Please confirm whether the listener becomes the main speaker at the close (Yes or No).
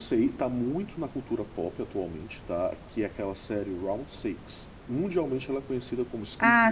Yes